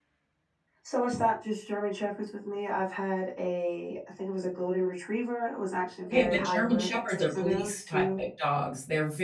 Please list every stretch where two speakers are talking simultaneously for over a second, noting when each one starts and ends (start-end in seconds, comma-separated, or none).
6.0-8.2